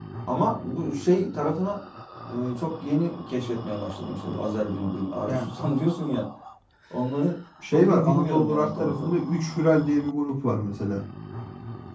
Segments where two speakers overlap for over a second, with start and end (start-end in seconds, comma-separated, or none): 7.7-9.1